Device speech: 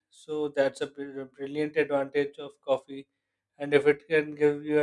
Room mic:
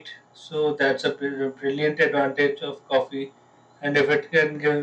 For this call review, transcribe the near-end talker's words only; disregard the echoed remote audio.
none

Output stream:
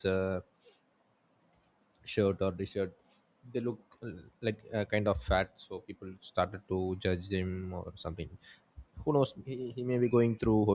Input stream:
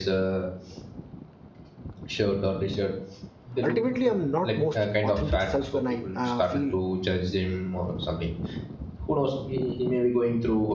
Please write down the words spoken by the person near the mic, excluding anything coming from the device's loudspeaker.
Ultimately, I'm not most authentic self when I uh, feel

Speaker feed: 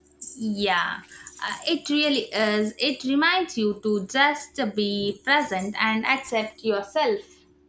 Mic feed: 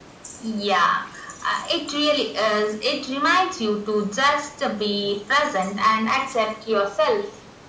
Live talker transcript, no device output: none

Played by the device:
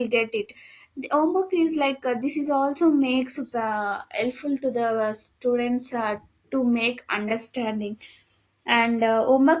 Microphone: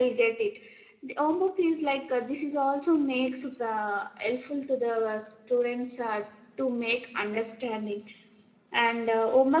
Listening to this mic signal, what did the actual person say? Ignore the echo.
none

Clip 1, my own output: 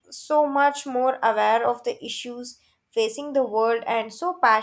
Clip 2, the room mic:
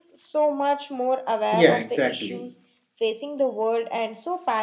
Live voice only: Yeah, exactly.

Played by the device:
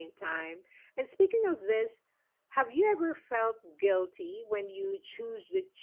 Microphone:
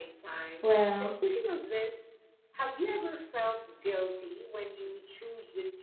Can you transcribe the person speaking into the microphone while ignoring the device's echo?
Well,

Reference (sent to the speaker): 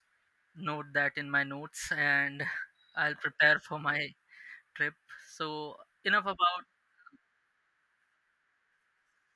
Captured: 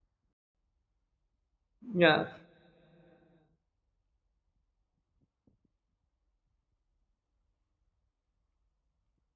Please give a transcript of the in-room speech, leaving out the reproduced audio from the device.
Yeah.

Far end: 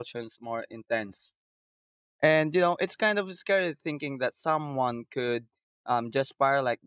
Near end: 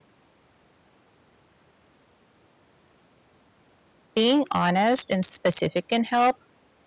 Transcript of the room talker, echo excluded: being honest and specific can help

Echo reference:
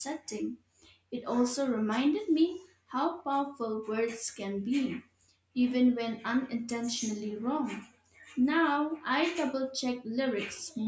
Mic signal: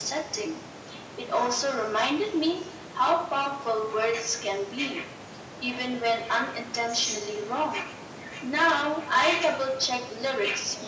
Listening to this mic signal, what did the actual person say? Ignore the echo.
none

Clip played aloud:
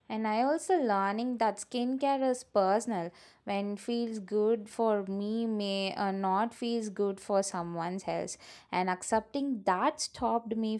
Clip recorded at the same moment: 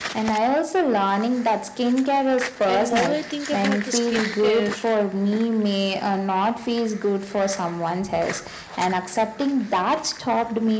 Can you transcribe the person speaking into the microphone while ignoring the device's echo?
and more I think about the skincare,

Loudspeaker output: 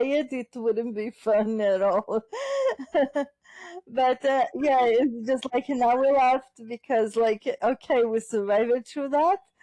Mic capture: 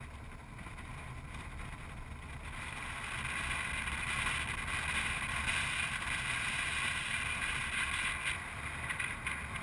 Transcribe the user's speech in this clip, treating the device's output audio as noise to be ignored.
none

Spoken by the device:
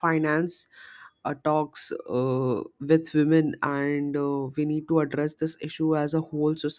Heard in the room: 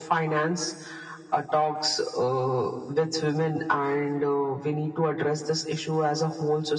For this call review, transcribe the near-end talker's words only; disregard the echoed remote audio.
none

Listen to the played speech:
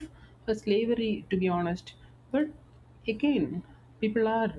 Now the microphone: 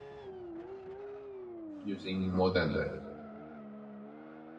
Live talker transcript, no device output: using more than that

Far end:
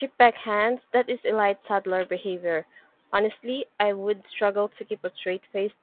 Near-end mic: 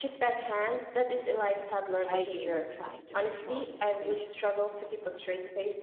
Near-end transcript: I gave up trying to control the situation.

